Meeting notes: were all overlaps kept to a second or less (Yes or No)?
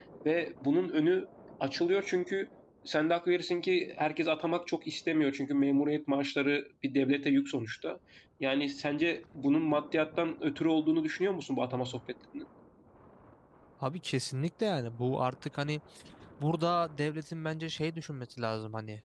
Yes